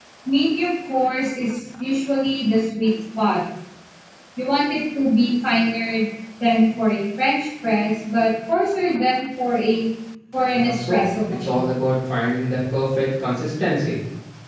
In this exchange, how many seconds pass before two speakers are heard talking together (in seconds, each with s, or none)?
10.5 s